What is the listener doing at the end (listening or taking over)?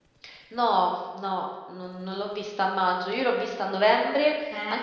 listening